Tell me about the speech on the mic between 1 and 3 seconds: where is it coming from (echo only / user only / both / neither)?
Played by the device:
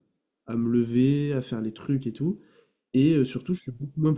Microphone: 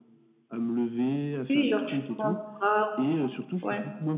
both